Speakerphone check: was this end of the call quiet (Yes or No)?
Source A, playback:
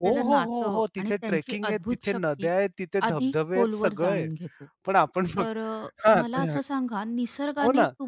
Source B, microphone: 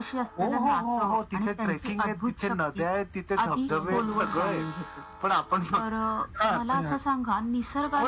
No